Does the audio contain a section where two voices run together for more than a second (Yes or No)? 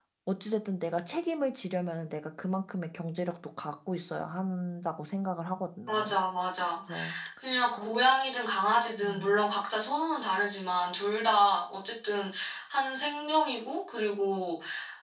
No